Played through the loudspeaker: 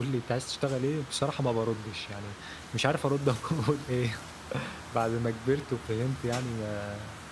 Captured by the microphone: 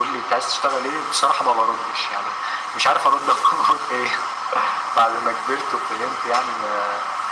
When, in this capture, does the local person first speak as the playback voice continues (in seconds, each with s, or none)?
none